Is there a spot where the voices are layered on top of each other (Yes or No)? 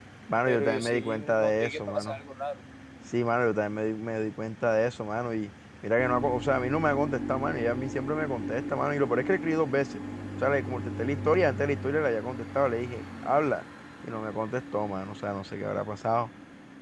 Yes